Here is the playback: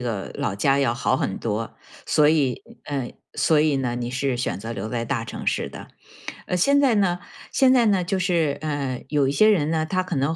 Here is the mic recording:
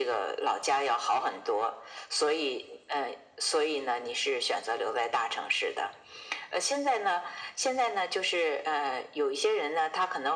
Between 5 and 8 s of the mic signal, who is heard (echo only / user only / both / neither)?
echo only